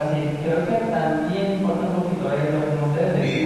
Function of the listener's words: taking over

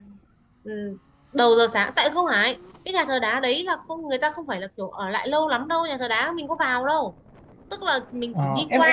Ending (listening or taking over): taking over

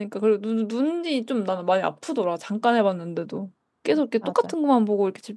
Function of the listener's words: listening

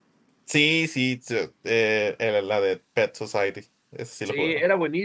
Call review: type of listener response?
taking over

